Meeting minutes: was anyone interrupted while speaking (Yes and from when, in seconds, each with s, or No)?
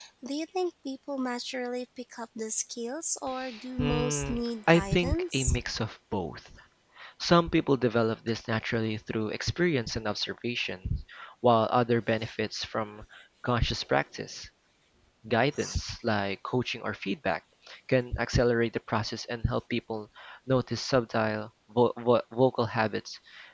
Yes, from 3.8 s